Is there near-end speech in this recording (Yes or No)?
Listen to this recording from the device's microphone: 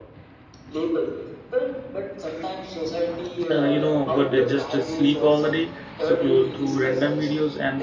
Yes